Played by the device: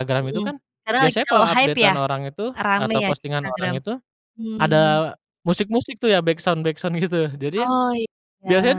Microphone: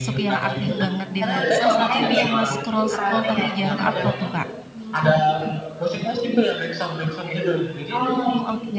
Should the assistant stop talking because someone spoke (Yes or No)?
Yes